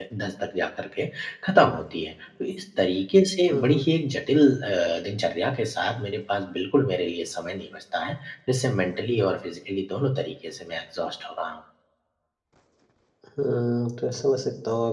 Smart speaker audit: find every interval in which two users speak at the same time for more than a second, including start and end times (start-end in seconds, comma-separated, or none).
none